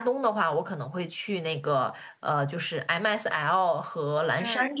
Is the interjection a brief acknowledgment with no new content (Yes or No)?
Yes